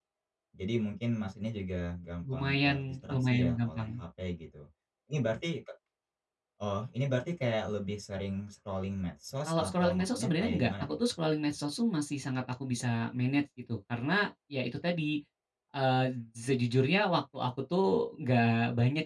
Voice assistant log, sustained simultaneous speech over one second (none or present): present